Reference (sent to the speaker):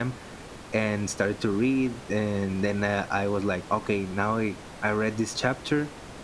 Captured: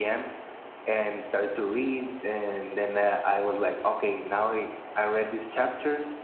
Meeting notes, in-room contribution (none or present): none